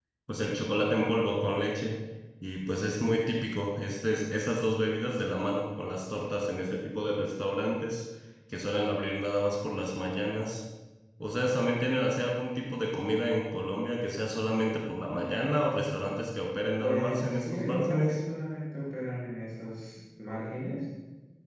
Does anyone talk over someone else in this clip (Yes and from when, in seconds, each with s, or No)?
Yes, from 16.8 s